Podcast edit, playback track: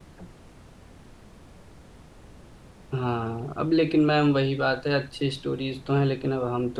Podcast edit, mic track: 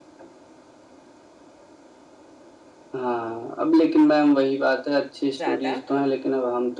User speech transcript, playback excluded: ज्यादा

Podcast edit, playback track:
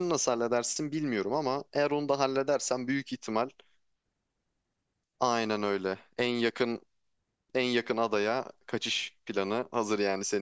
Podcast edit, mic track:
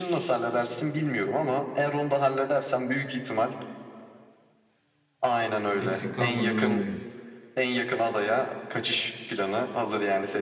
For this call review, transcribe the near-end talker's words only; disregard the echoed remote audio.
Eksik kalmadan olmuyor.

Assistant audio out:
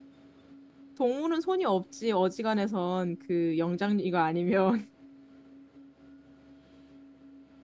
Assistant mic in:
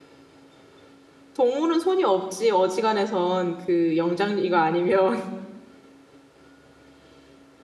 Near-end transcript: none

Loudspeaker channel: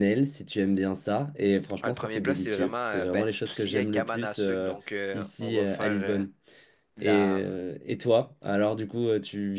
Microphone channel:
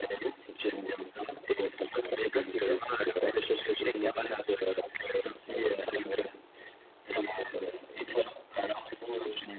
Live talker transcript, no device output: none

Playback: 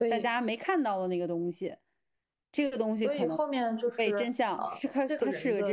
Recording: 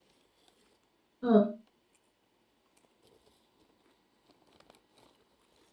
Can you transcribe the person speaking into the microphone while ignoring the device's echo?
嗯，

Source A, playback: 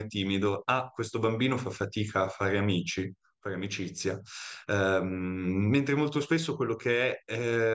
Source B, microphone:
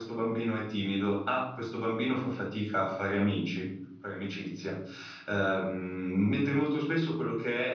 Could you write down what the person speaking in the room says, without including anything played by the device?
none

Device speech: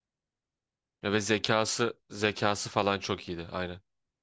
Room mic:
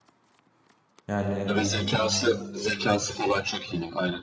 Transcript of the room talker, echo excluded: Yani

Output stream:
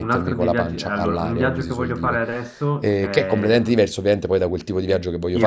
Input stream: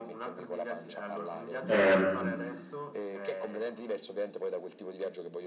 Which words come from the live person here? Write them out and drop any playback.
ehm,

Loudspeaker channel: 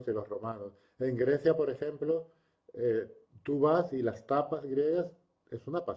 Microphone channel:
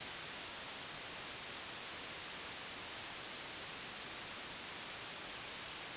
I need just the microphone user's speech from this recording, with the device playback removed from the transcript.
none

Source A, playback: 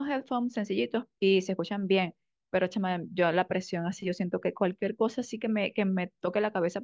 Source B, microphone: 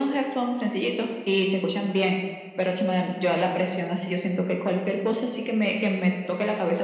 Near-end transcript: none

